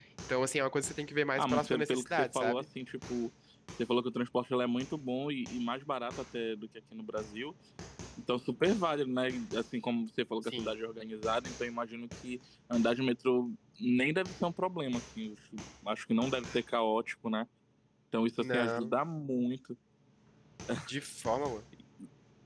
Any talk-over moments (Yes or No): Yes